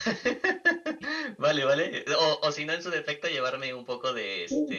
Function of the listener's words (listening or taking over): taking over